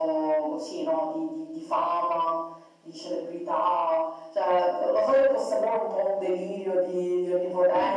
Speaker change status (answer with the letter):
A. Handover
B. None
A